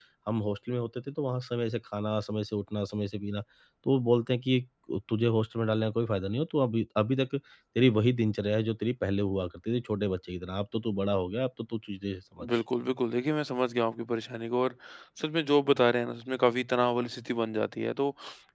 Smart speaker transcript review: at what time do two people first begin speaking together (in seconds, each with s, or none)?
none